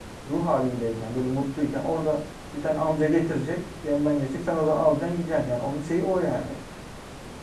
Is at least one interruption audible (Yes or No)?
No